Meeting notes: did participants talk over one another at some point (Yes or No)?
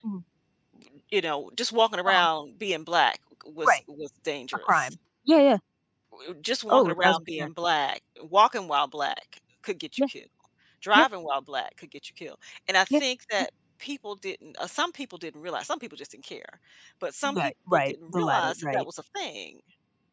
Yes